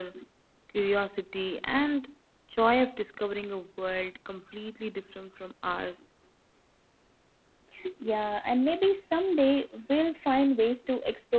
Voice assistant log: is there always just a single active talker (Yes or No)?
Yes